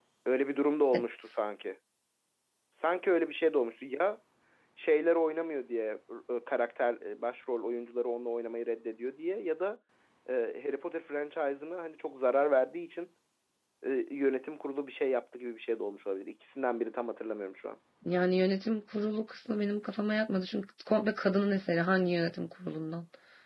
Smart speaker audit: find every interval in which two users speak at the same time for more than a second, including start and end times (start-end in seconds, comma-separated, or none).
none